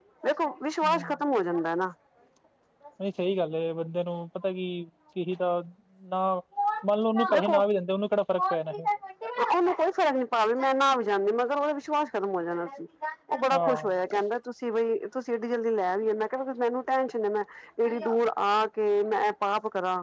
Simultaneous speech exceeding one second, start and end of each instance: none

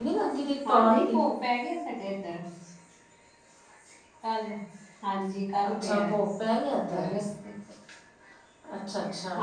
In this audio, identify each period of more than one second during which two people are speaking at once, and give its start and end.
none

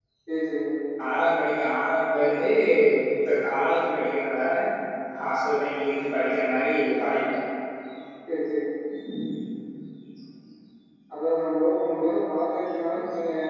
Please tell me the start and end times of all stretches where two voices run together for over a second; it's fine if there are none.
none

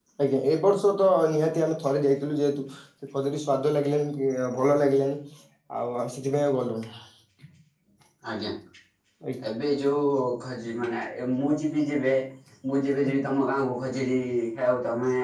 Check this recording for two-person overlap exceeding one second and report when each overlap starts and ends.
none

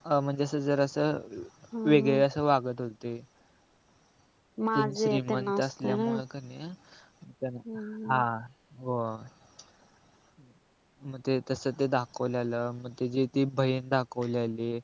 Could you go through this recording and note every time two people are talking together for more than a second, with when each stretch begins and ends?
4.8-6.1

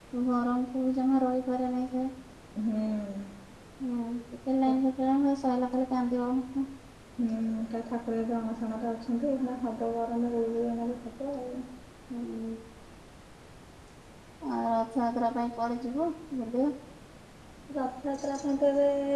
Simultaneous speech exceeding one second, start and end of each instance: none

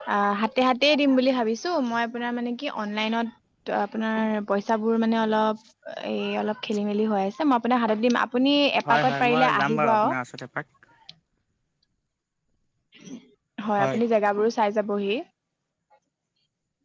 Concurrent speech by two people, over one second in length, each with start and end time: 8.9-10.1

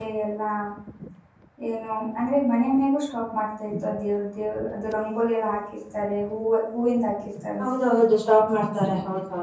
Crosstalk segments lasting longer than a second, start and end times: none

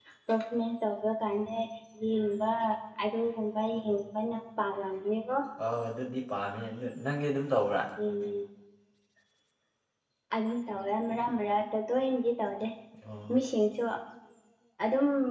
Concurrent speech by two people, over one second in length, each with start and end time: none

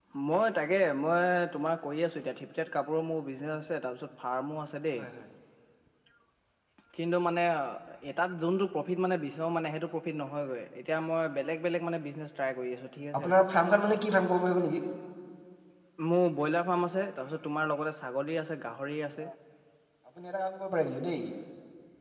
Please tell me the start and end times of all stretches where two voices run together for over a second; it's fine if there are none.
none

